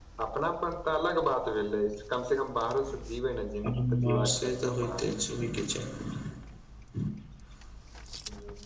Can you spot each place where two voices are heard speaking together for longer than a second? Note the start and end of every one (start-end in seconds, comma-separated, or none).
3.6-5.1